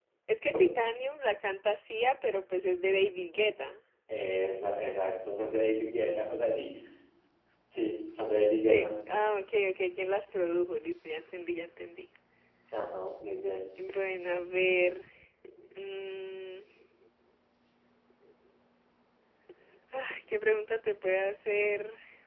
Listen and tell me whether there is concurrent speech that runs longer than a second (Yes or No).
No